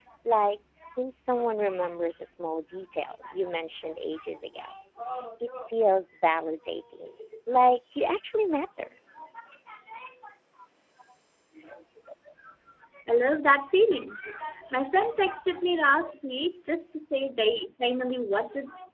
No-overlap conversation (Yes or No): Yes